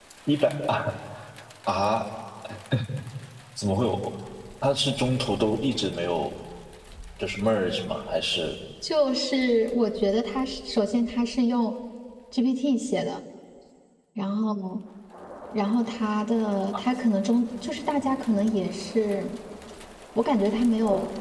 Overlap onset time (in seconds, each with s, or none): none